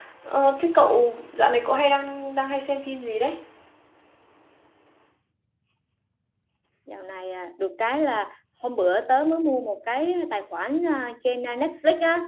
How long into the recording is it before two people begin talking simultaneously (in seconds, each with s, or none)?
none